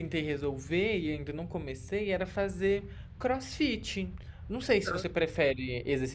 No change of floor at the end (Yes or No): Yes